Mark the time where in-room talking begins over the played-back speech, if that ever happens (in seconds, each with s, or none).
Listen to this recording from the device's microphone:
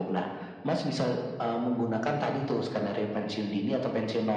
none